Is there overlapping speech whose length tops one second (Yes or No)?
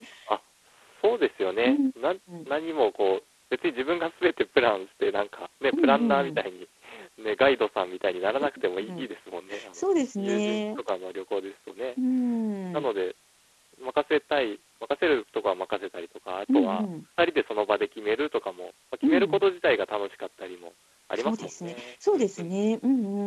Yes